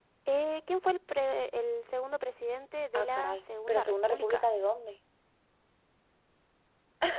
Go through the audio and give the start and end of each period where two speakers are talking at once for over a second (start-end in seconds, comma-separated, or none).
3.0-4.4